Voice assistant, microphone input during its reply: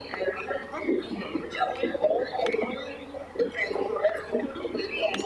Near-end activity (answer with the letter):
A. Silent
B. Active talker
A